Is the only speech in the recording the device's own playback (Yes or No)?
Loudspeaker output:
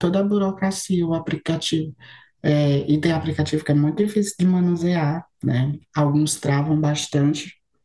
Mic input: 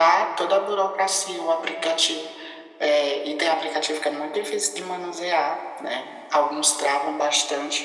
Yes